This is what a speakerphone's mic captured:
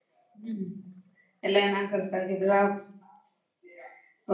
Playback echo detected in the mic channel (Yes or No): No